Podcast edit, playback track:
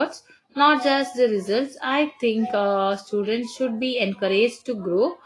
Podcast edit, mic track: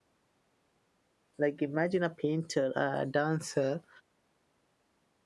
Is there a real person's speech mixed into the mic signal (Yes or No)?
Yes